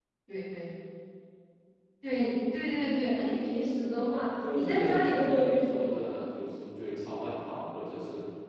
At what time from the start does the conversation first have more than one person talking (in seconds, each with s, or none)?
4.4 s